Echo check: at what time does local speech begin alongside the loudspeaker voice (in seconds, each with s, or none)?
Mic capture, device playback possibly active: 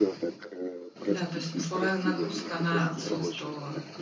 1.0 s